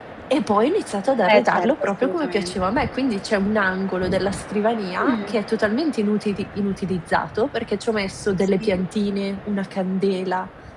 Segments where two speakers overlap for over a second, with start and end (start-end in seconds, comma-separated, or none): 1.2-2.7